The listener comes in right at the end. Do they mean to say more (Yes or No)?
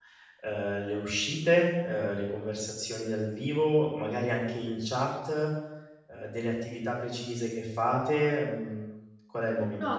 Yes